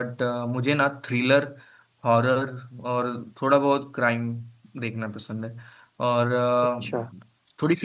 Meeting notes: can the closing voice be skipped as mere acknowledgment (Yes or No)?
Yes